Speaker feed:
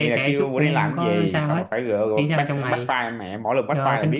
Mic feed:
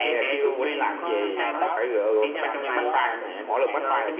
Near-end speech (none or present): present